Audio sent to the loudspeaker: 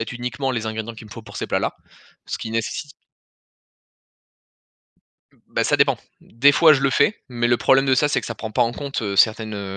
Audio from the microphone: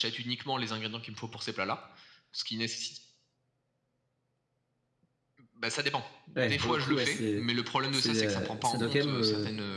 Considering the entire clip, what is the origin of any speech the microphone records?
both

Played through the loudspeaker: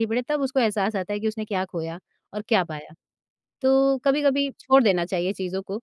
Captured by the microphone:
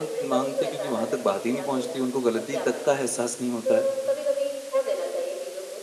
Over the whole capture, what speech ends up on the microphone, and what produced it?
both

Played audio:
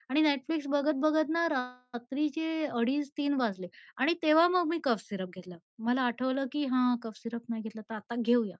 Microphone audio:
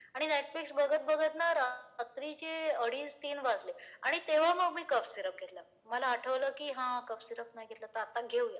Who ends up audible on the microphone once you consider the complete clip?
echo only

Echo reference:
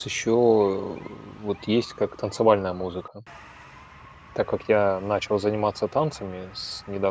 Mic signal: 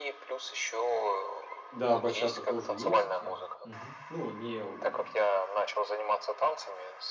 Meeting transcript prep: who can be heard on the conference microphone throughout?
both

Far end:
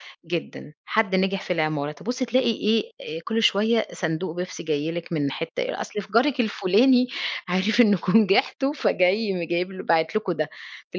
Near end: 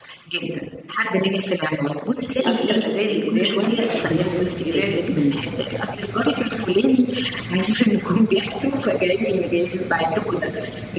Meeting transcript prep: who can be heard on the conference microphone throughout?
both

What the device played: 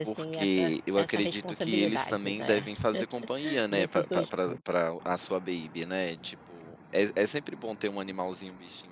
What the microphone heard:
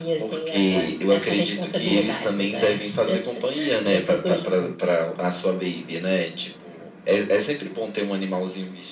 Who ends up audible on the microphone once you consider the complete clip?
echo only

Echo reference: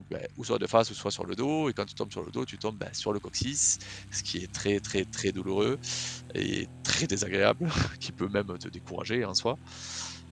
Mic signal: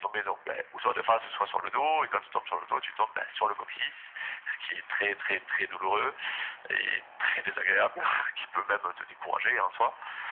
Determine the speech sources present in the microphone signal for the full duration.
echo only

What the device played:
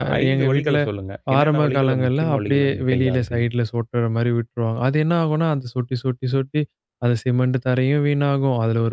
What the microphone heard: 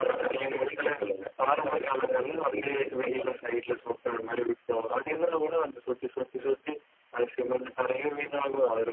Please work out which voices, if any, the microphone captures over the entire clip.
echo only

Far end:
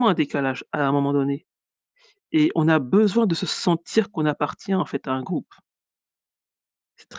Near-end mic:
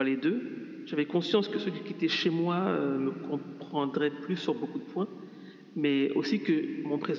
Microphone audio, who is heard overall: user only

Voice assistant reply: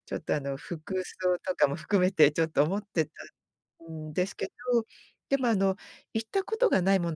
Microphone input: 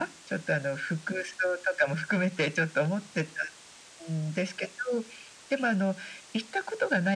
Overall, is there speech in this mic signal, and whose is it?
echo only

